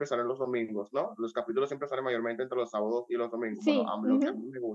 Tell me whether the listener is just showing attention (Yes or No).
Yes